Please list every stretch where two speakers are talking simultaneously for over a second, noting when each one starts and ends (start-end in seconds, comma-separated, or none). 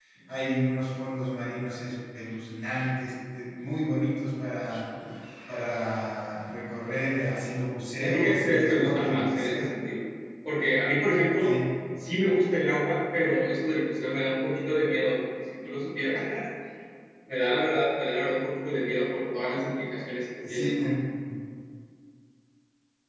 8.0-9.7